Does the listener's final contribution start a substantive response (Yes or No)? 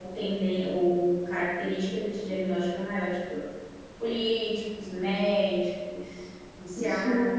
Yes